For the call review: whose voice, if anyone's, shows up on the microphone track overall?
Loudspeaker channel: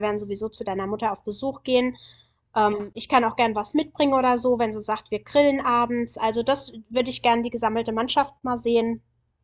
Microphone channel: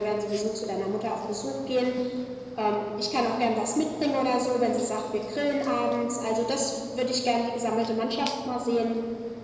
echo only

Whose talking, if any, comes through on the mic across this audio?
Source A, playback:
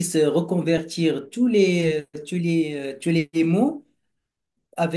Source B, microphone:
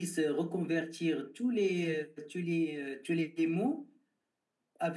echo only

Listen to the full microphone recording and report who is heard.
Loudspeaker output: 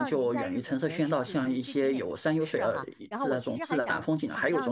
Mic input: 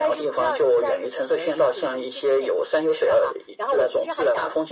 echo only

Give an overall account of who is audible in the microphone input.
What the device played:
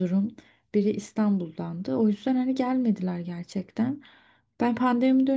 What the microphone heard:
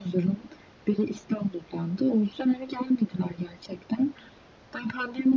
echo only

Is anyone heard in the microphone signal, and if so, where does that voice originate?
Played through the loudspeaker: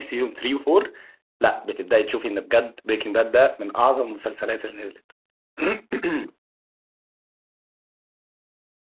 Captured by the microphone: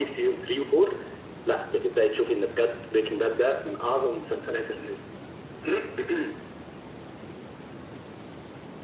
echo only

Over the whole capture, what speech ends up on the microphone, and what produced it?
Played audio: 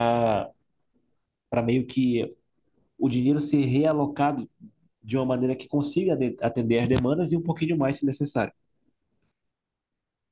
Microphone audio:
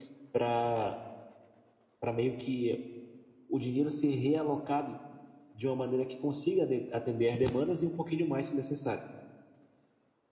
echo only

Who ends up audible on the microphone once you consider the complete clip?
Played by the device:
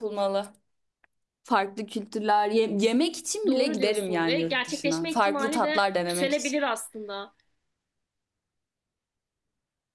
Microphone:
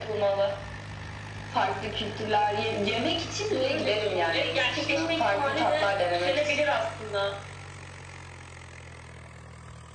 echo only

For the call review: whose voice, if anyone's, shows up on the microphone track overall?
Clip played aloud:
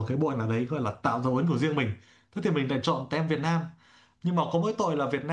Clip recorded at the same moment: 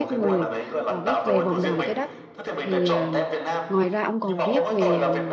both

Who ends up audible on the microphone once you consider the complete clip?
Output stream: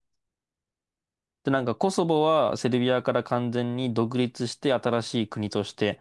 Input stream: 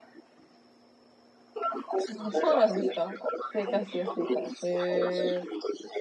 both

